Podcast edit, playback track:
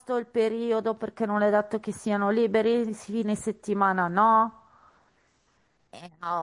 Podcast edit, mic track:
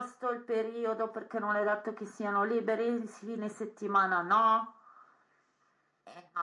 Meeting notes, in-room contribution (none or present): none